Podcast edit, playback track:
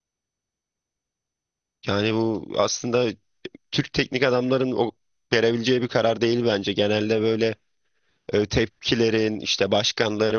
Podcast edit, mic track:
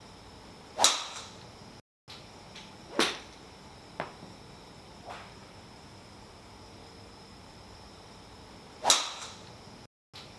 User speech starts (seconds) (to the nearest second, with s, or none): none